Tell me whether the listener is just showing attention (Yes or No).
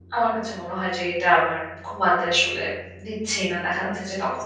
Yes